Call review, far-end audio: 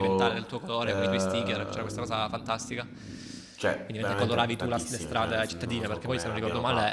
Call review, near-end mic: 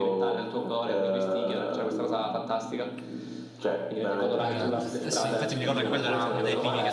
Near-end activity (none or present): present